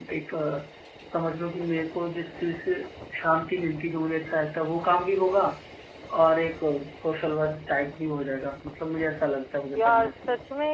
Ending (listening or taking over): taking over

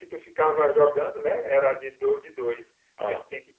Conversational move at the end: listening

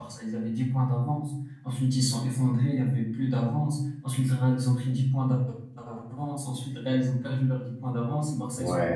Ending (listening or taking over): listening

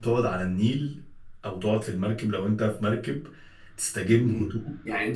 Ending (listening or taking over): taking over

